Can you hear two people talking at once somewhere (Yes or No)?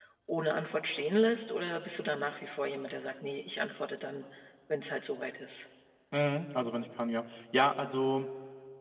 No